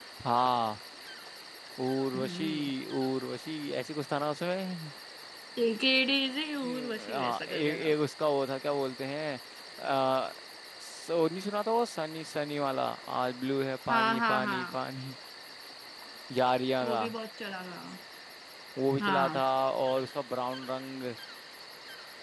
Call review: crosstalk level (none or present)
present